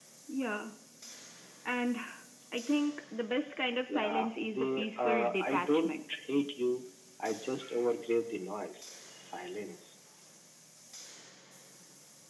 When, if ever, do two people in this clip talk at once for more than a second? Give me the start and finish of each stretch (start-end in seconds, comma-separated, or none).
3.9-5.9